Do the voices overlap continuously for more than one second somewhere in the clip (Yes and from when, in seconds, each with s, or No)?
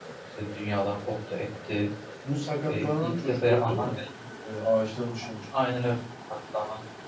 Yes, from 2.7 s